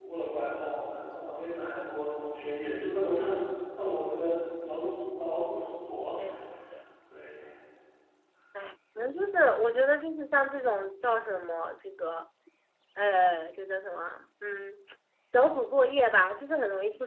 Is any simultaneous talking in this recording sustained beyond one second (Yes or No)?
No